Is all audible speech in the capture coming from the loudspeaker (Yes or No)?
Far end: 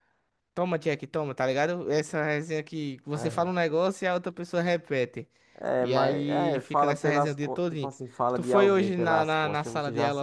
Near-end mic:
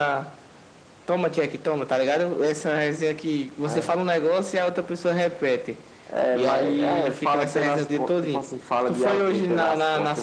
Yes